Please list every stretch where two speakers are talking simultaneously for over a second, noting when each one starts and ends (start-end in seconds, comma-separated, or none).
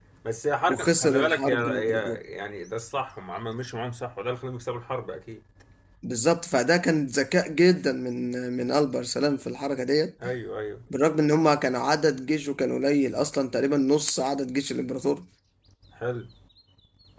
0.7-2.2